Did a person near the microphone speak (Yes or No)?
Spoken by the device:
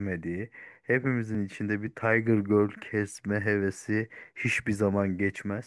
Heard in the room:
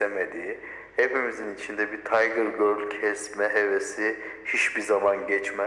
No